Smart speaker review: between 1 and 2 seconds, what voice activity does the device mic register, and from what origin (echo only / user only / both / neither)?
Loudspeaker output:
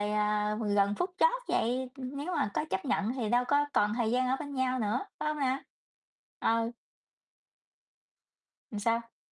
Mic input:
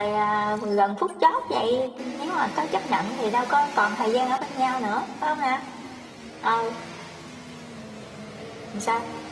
echo only